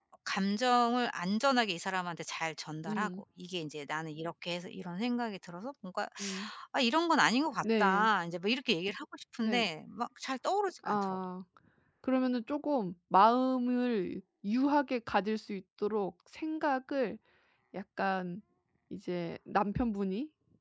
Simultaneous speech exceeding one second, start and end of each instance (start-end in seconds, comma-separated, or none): none